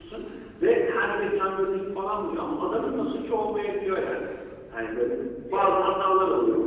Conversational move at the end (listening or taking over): listening